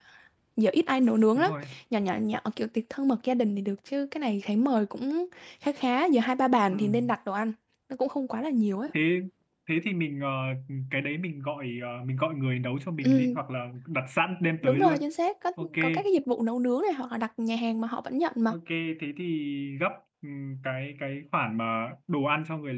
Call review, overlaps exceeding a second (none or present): none